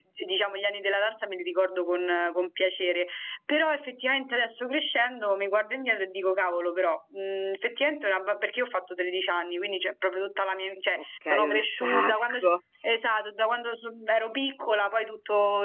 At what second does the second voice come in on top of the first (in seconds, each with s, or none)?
11.0 s